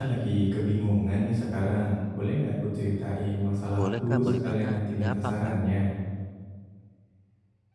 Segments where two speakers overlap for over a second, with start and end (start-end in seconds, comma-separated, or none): 3.8-5.6